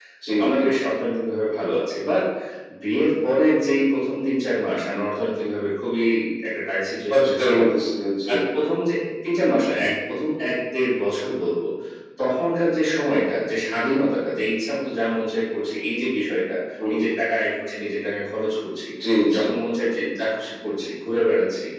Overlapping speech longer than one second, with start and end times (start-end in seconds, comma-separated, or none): none